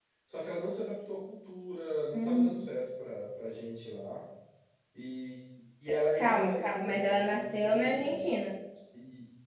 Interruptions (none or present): present